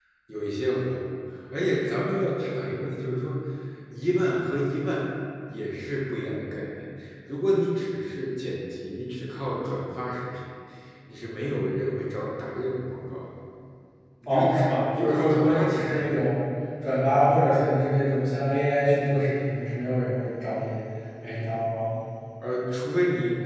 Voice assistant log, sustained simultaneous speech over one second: present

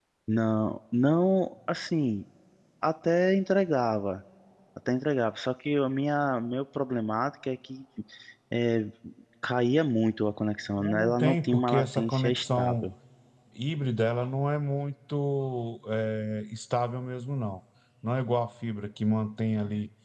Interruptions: present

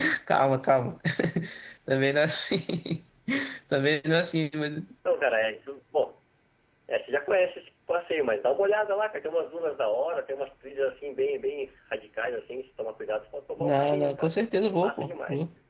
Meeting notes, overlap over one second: present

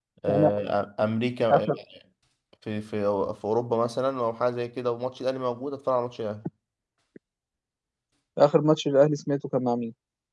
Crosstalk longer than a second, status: none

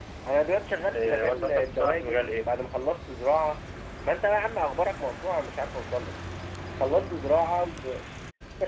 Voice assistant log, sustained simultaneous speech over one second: present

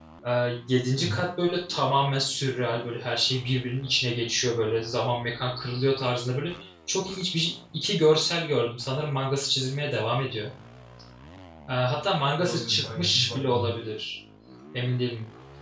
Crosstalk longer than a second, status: present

